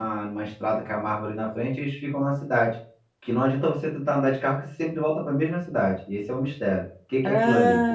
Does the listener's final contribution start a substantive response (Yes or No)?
Yes